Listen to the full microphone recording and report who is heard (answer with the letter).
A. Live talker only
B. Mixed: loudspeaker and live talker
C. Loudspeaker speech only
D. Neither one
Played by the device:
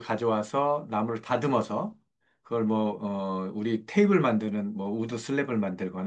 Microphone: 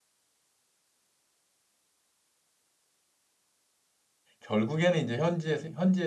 A